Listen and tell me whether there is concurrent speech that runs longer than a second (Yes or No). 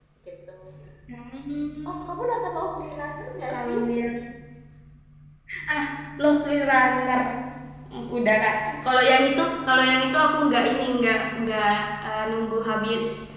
No